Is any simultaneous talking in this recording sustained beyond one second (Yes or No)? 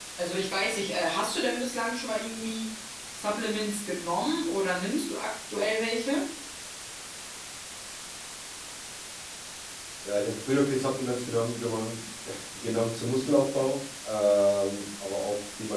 No